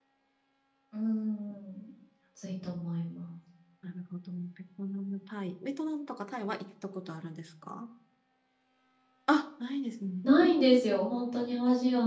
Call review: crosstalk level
none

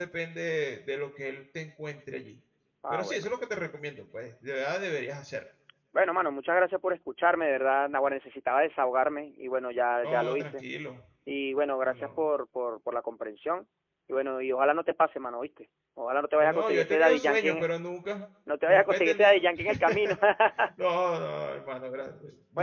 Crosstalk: present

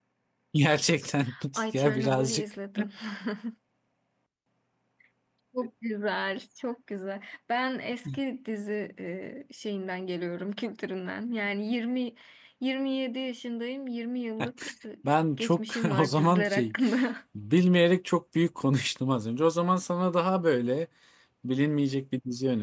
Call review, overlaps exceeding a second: present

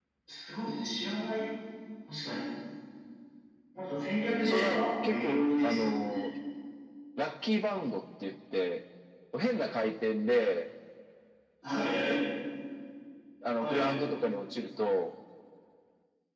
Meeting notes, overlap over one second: present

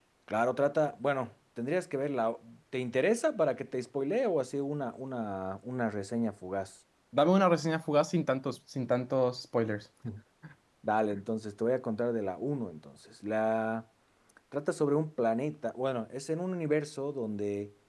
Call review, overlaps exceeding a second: none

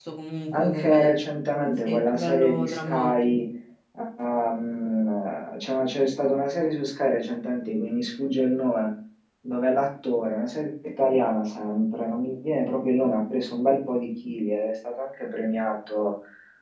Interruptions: present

